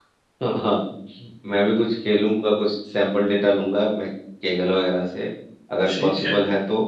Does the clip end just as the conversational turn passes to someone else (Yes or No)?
No